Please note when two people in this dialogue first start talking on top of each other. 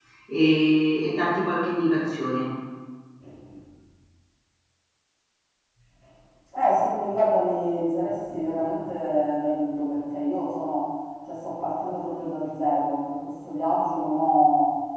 none

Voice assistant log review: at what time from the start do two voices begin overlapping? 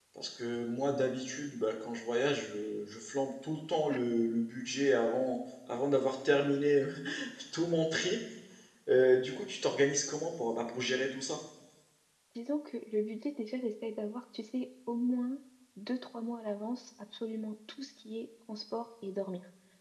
none

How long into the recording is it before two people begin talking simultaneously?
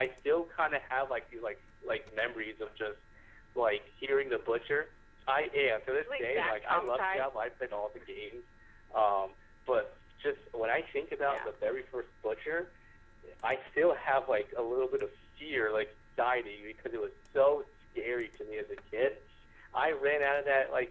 6.0 s

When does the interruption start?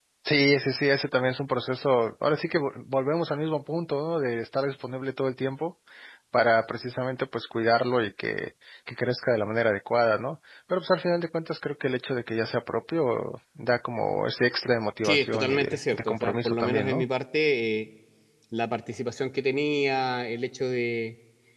15.0 s

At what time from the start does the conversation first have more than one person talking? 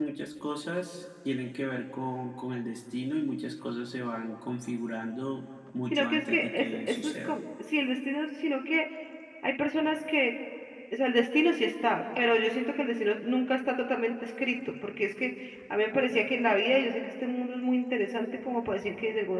5.9 s

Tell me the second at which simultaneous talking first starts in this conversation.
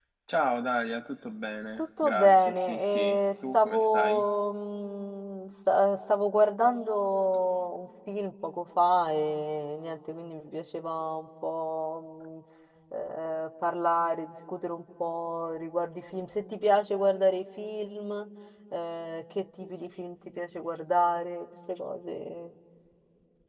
1.8 s

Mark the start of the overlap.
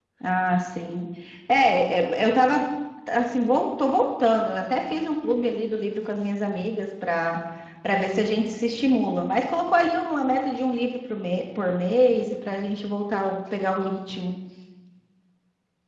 none

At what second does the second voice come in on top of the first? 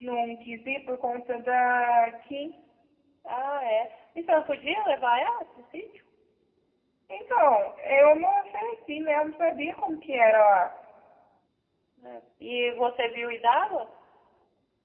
none

